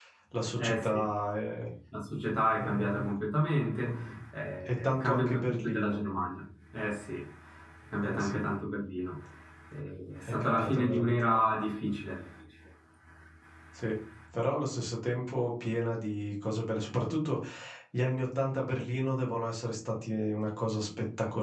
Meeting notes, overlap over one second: present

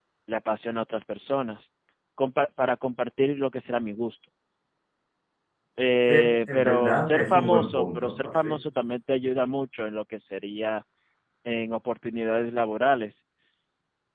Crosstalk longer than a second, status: present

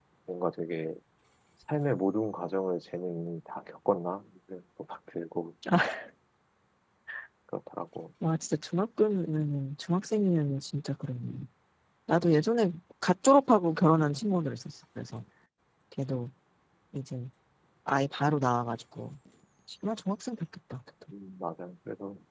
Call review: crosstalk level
none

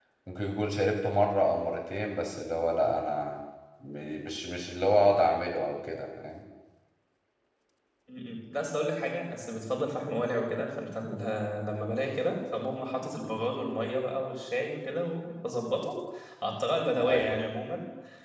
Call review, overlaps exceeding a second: none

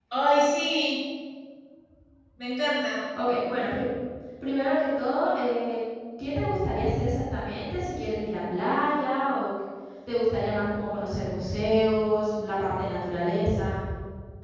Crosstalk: none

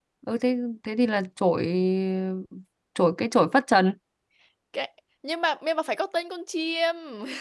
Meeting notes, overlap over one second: none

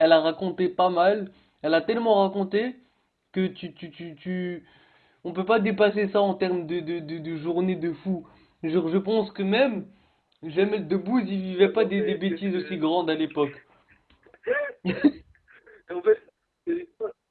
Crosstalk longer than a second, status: present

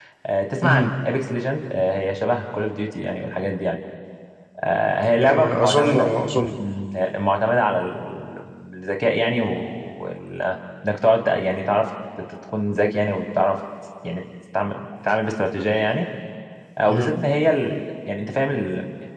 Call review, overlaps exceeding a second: present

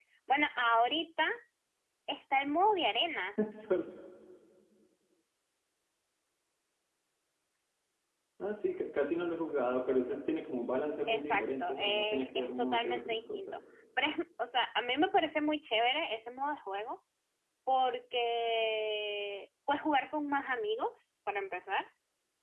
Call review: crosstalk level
present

